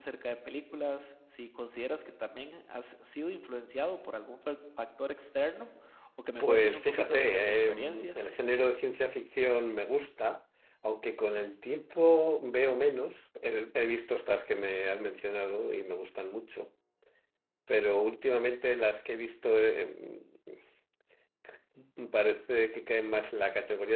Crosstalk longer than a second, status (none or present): present